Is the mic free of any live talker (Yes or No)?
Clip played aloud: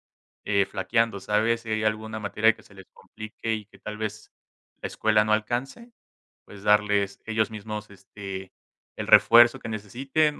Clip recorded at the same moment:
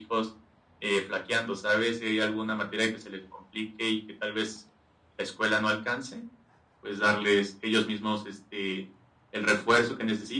Yes